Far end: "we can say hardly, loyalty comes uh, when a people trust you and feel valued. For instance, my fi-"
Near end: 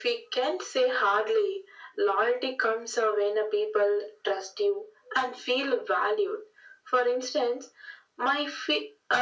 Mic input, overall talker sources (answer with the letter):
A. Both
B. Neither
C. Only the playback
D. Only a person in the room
C